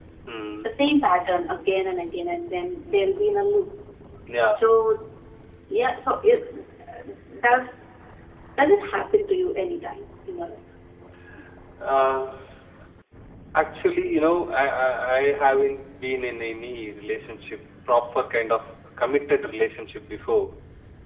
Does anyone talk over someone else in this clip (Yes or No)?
No